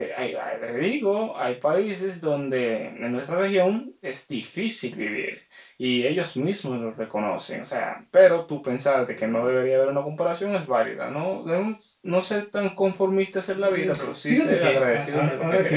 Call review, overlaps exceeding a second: present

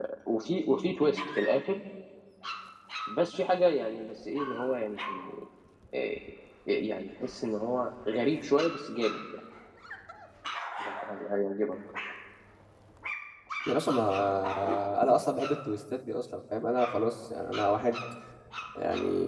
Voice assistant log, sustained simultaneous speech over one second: none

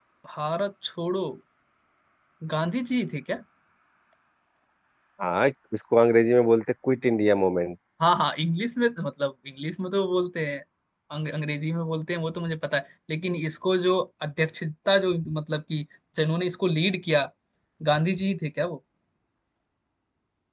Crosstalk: none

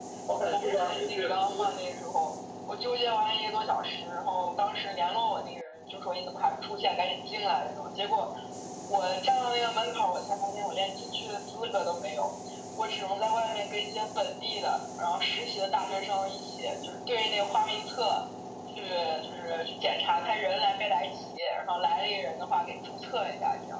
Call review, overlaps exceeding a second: present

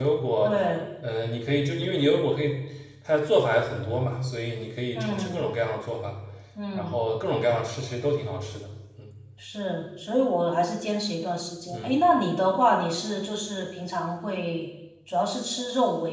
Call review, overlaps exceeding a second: none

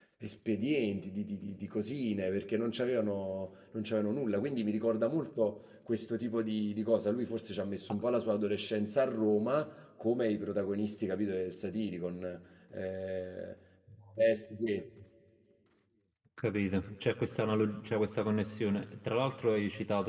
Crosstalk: none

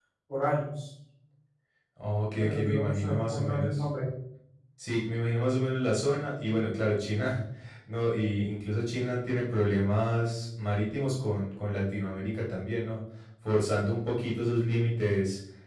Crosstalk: present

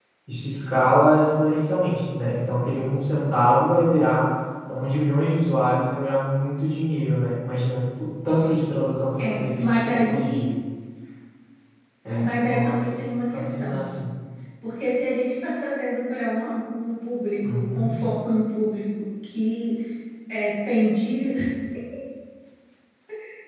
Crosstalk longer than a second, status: present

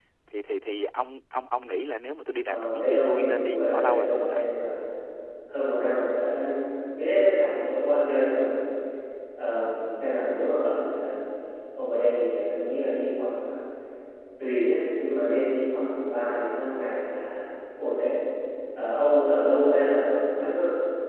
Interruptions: present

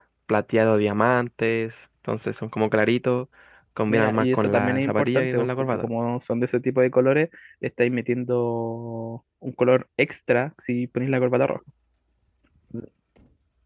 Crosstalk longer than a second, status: present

